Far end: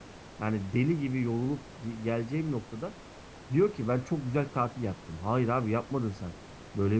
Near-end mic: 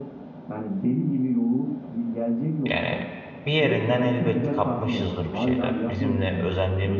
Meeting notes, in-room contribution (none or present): present